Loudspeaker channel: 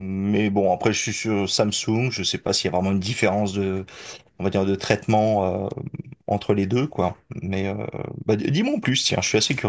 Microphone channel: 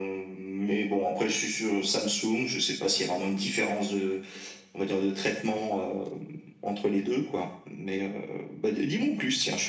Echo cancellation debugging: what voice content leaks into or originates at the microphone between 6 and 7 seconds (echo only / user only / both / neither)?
echo only